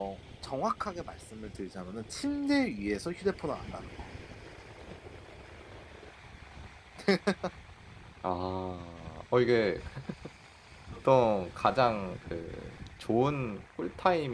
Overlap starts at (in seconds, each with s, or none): none